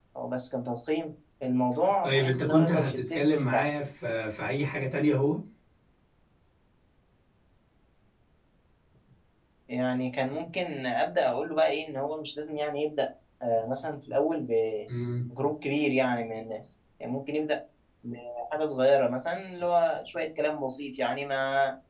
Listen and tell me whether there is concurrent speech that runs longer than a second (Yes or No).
Yes